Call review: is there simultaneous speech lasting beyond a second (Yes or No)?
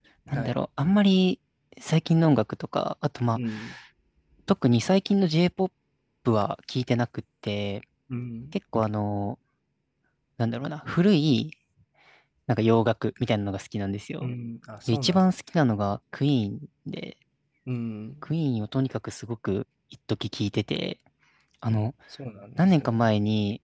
No